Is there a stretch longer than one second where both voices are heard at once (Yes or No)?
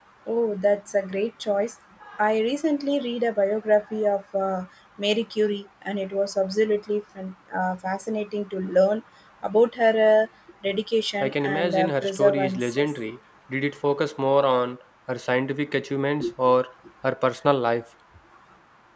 Yes